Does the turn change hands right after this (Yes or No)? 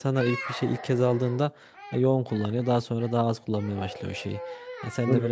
No